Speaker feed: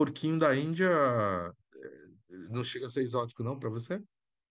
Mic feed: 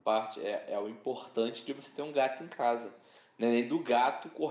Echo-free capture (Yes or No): Yes